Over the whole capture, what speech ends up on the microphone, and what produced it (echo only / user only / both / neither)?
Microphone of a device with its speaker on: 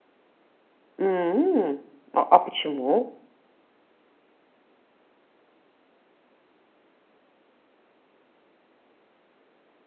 user only